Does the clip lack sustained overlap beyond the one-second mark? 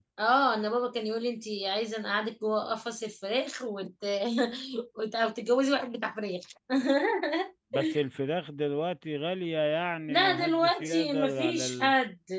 No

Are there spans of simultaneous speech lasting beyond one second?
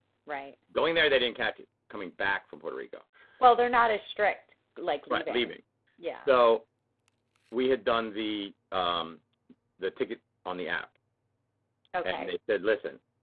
No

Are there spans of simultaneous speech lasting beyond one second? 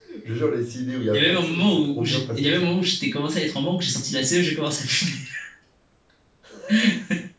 Yes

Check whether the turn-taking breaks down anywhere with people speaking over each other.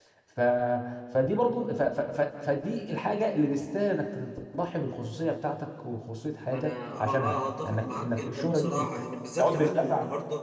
Yes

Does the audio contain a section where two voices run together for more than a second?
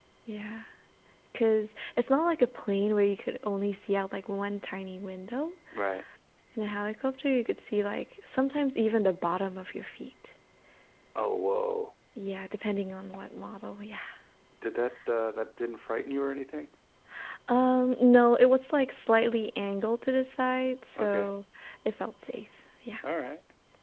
No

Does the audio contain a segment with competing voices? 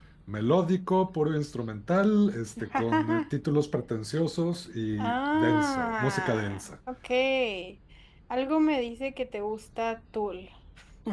Yes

